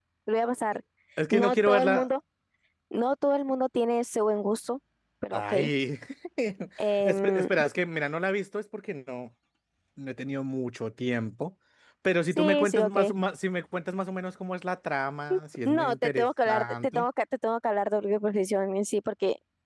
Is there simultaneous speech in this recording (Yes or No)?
Yes